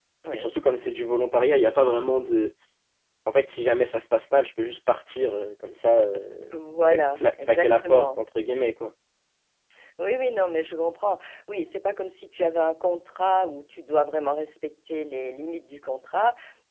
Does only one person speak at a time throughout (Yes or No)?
No